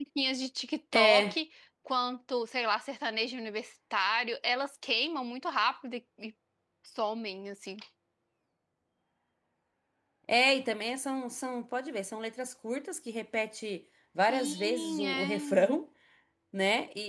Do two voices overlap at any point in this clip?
Yes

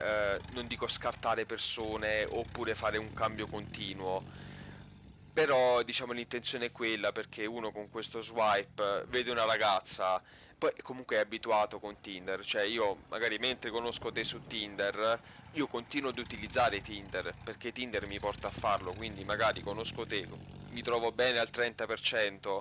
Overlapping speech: No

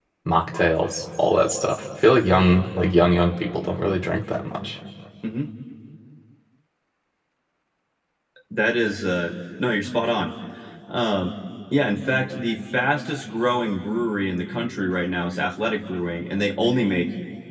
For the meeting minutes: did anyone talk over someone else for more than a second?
No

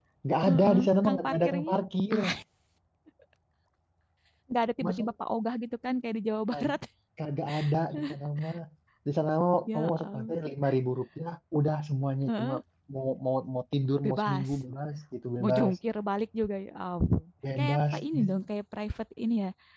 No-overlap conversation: No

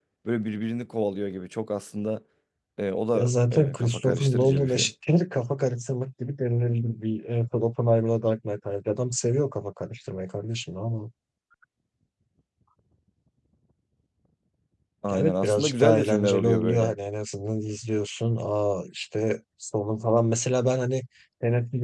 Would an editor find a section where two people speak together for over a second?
Yes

